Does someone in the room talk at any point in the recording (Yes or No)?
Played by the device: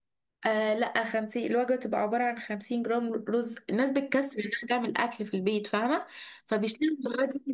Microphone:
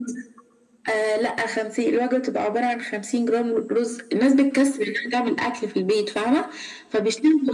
No